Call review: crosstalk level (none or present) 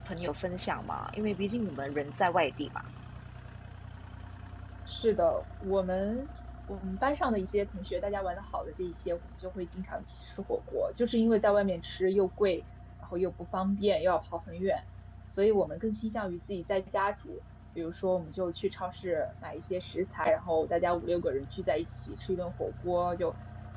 none